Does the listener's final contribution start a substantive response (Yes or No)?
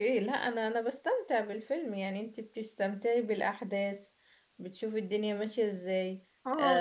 Yes